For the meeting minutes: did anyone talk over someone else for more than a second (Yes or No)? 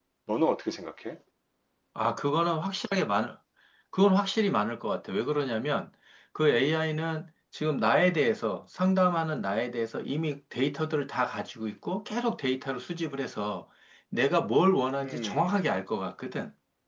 No